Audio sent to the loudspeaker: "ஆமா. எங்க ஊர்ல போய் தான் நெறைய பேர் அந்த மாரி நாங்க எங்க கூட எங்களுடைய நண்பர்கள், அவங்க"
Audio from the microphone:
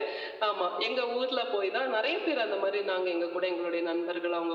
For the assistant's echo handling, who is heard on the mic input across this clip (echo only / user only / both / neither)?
echo only